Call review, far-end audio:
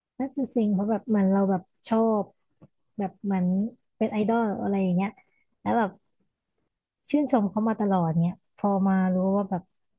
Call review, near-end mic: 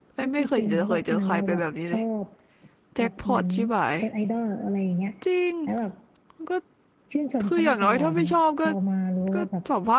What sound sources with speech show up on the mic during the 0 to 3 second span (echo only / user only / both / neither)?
both